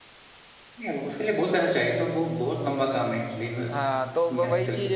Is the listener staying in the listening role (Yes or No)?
No